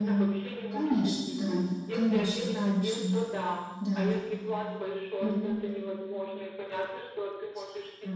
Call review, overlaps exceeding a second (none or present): present